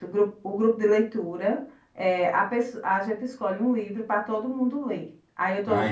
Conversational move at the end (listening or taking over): listening